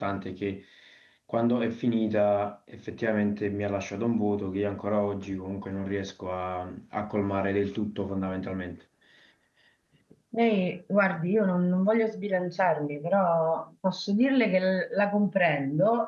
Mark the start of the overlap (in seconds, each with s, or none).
none